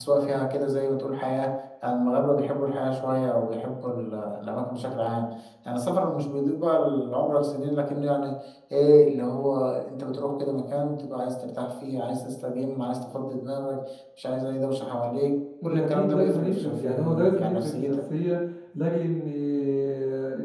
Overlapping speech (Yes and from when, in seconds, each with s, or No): Yes, from 15.6 s